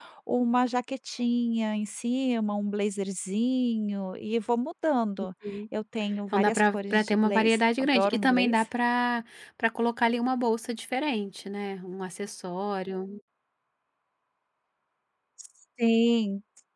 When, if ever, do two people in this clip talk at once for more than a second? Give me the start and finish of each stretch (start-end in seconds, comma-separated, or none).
6.3-8.6